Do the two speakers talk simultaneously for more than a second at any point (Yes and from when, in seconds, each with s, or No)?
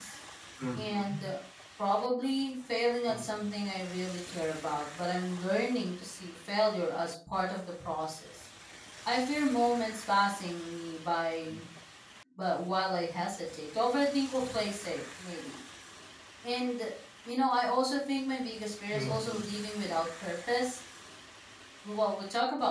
No